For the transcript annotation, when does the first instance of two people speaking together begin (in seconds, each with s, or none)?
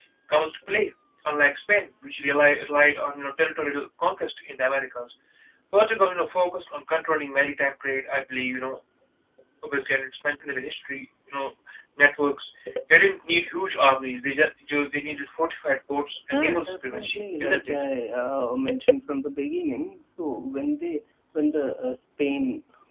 16.3 s